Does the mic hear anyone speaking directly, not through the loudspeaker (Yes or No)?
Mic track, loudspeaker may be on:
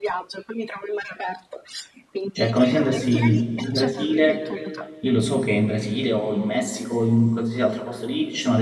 Yes